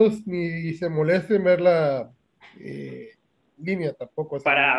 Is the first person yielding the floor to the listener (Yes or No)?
Yes